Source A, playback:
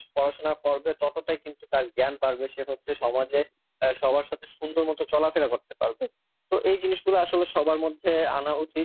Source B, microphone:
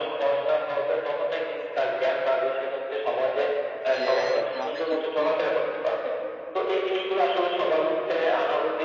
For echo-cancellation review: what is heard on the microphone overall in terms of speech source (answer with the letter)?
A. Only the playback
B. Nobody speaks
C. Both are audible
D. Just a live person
C